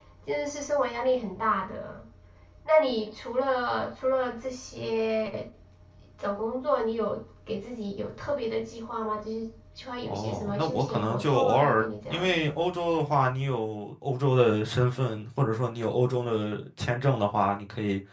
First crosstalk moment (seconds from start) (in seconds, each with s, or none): 10.0 s